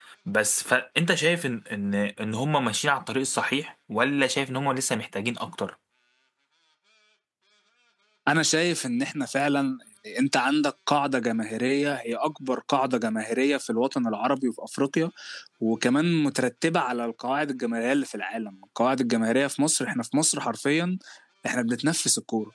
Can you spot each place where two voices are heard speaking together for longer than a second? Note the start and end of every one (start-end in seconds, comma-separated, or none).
none